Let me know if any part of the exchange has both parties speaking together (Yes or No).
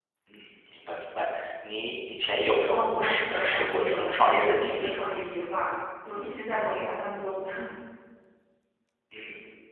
Yes